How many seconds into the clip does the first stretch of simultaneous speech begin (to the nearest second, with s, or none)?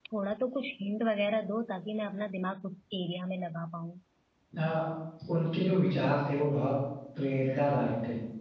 none